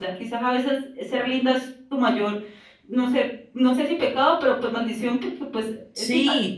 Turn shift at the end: Yes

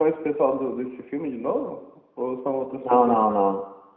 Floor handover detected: Yes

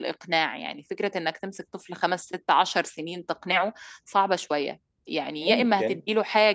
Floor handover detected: No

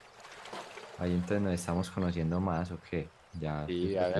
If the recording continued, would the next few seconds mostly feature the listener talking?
Yes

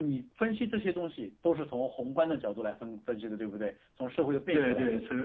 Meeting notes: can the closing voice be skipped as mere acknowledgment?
No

